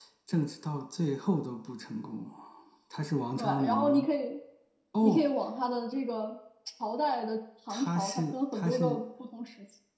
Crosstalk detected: Yes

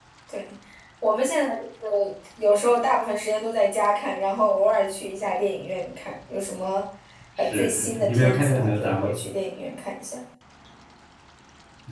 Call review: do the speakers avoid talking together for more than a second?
No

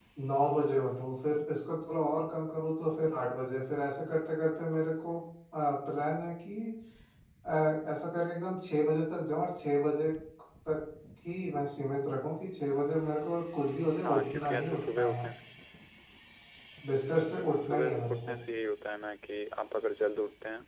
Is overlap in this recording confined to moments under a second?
No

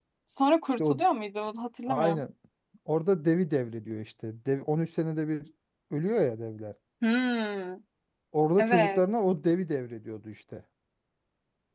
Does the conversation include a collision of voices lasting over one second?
No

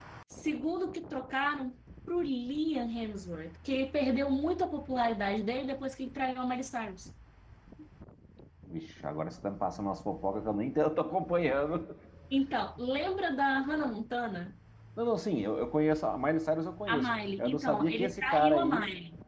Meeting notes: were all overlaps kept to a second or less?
No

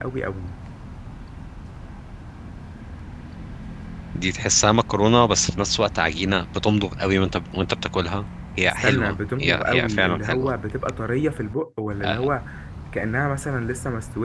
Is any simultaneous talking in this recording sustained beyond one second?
Yes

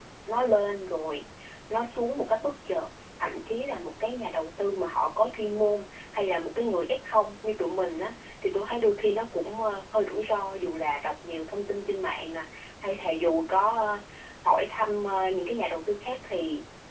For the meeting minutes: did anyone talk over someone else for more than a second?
No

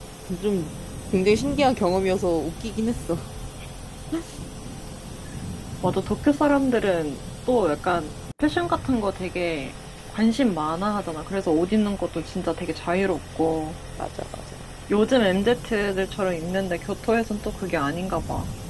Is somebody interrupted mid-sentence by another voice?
No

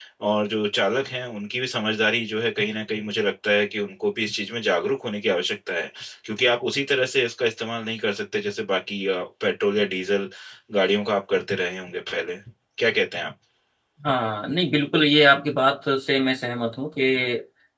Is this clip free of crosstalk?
Yes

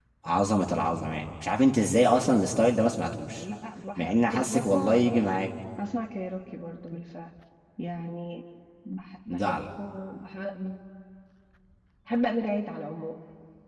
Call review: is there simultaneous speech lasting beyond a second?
Yes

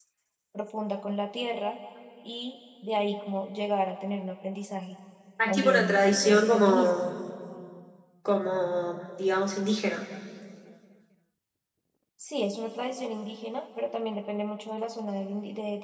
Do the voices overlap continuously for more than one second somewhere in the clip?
Yes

